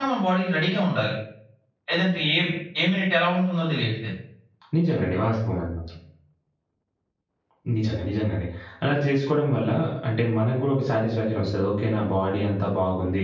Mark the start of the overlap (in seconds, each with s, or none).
none